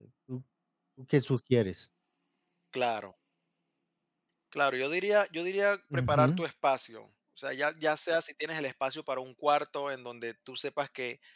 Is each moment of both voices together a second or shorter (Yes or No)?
Yes